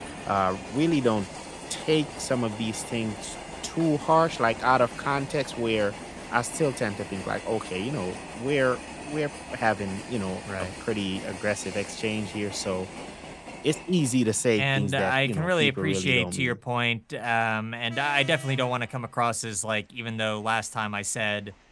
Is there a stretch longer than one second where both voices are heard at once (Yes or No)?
Yes